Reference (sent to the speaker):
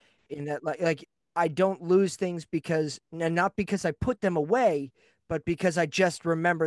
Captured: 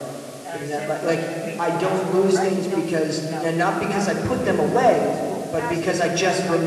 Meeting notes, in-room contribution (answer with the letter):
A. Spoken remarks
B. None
A